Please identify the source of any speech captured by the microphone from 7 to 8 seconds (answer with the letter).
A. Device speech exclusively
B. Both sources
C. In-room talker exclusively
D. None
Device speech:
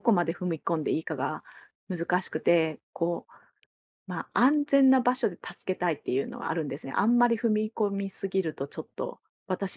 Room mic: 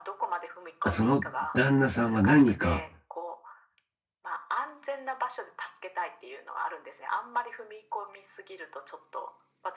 A